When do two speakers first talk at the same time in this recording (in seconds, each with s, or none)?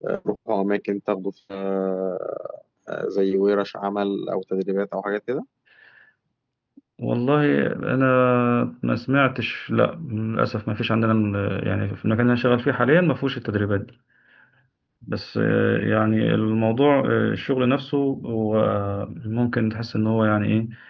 none